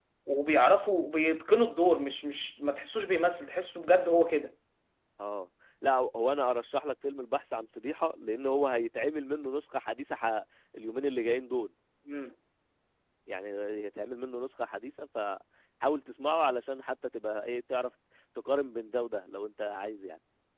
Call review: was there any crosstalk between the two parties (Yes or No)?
No